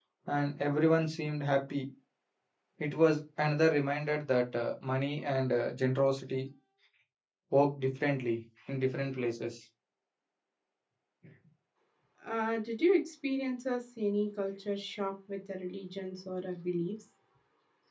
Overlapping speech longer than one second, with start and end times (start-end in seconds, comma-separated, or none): none